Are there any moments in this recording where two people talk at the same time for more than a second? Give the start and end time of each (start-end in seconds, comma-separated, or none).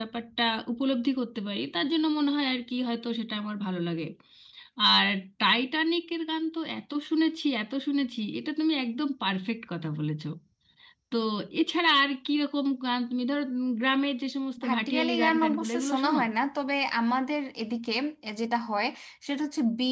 14.6-16.2